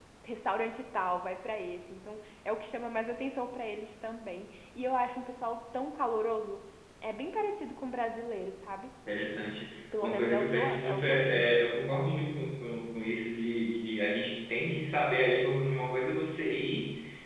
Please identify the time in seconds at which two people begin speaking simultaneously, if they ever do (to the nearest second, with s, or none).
10 s